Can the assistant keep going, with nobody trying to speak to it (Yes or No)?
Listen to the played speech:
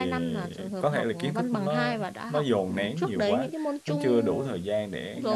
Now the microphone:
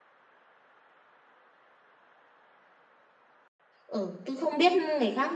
No